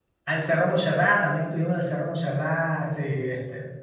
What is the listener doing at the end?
listening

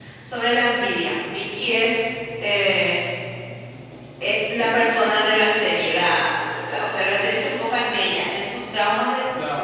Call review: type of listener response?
listening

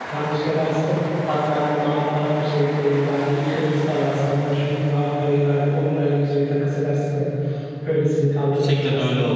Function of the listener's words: taking over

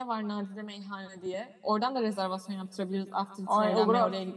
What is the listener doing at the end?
taking over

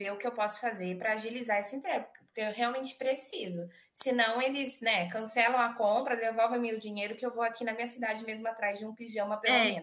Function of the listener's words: taking over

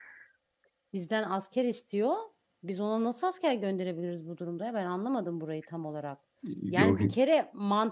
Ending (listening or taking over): listening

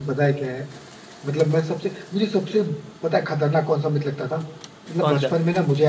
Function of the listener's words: listening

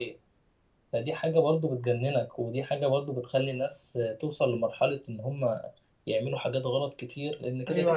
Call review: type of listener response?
taking over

